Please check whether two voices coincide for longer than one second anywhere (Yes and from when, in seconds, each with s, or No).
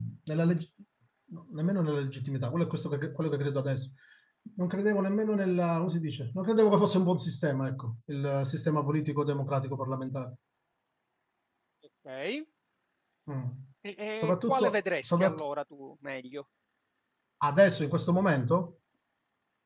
Yes, from 14.2 s